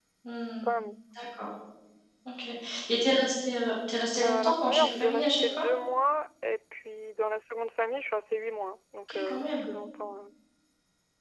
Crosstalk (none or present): present